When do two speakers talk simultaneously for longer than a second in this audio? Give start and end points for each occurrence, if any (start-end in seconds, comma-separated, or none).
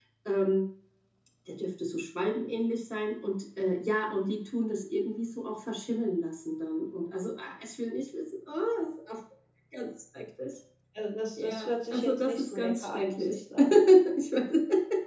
11.4-13.4